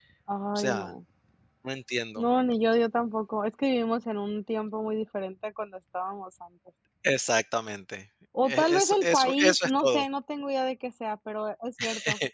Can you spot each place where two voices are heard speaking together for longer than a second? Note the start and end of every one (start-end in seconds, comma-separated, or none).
8.5-10.0